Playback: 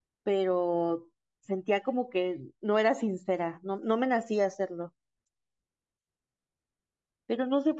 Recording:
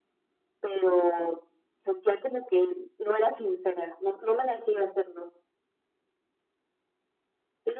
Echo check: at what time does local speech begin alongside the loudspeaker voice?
none

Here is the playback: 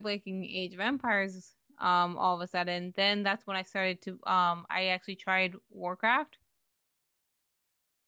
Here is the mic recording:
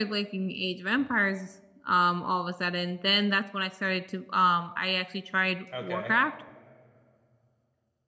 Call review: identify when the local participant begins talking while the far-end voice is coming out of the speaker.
5.7 s

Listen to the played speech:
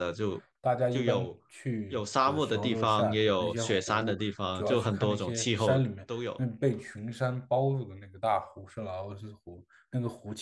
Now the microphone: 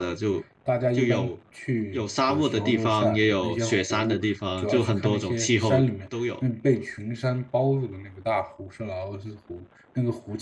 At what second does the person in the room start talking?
none

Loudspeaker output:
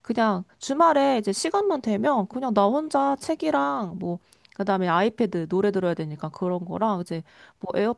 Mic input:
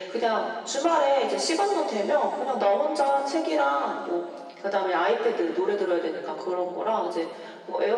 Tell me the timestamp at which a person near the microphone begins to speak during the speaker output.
none

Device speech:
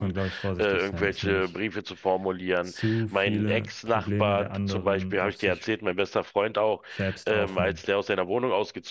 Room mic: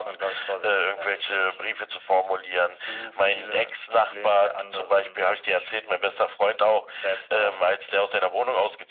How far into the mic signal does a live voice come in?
none

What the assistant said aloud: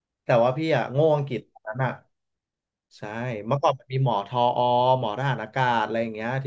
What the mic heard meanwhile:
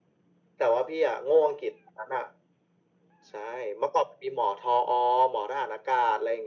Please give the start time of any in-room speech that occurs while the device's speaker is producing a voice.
none

